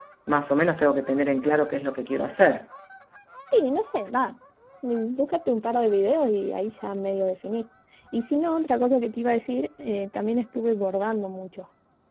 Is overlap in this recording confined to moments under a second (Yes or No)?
Yes